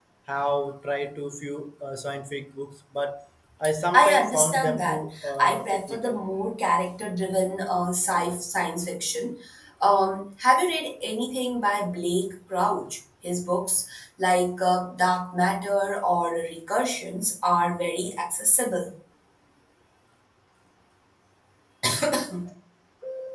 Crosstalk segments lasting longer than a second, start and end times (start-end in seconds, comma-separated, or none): 3.9-6.2